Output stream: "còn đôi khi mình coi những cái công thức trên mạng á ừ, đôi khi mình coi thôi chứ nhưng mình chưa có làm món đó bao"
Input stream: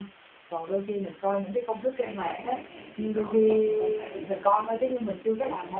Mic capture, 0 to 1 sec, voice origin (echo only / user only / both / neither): echo only